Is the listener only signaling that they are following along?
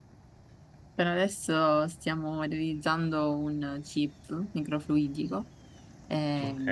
Yes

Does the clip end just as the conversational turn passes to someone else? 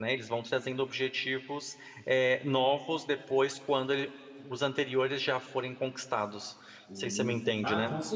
Yes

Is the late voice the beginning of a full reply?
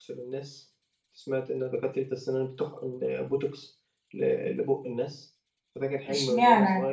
Yes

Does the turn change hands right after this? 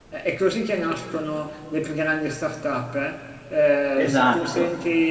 No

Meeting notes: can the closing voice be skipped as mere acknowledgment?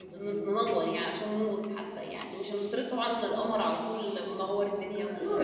No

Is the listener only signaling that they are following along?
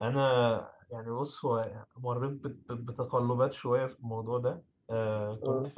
Yes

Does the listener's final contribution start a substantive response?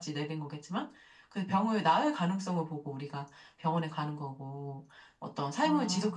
No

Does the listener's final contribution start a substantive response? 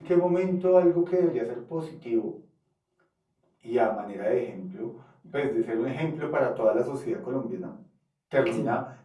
No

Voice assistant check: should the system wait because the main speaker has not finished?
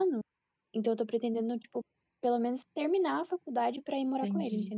No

